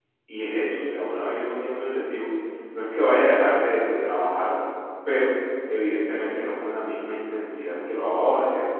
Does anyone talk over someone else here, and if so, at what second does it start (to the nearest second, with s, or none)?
none